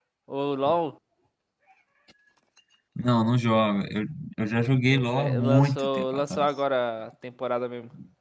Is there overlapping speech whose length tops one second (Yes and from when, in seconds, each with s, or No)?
Yes, from 4.9 s